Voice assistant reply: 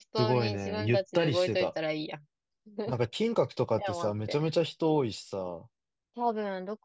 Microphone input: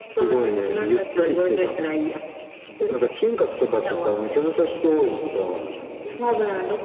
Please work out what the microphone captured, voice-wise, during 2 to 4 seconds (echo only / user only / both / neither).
echo only